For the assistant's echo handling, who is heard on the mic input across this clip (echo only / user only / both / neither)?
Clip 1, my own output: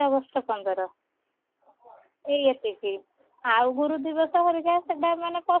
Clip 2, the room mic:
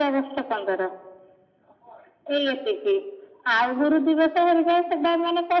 echo only